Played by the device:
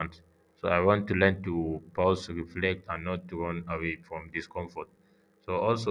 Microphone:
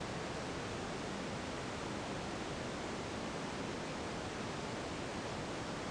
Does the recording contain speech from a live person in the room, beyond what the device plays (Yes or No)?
No